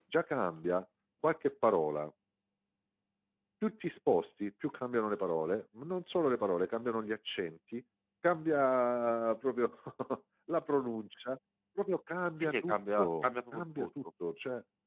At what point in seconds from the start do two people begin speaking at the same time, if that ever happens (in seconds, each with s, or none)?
12.4 s